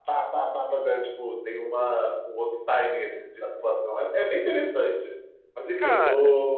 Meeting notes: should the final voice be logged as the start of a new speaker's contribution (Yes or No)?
No